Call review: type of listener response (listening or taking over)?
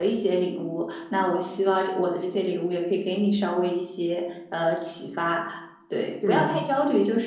listening